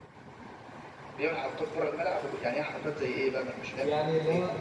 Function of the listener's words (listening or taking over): taking over